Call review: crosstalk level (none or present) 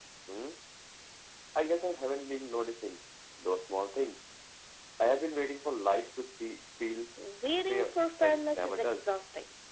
present